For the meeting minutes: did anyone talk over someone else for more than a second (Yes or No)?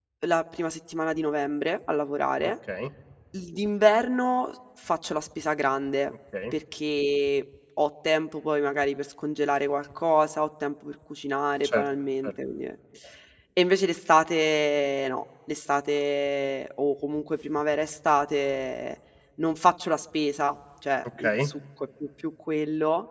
No